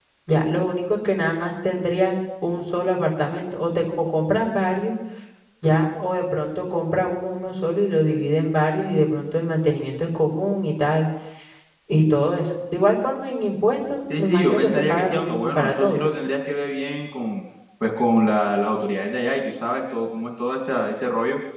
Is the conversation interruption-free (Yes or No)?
No